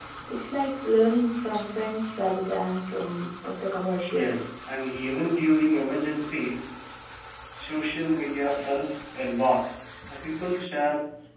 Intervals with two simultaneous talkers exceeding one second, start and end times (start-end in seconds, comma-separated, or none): none